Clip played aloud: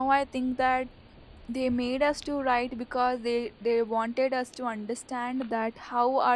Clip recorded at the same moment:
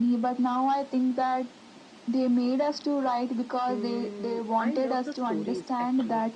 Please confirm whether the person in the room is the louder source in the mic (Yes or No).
No